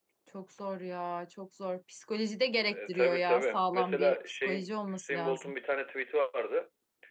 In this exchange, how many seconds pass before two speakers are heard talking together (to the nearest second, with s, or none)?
3 s